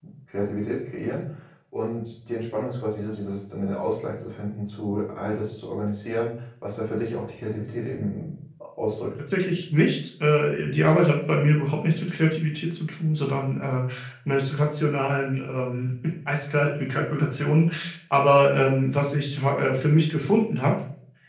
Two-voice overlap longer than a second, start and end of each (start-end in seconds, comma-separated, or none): none